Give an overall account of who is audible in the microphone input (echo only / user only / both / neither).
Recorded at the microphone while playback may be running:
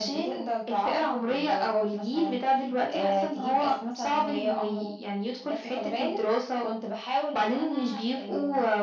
echo only